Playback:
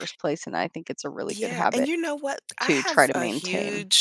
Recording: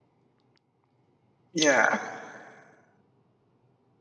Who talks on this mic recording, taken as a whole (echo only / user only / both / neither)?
user only